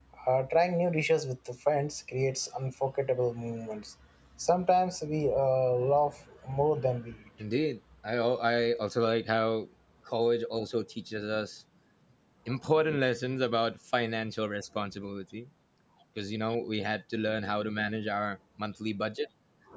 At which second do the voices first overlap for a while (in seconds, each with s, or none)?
none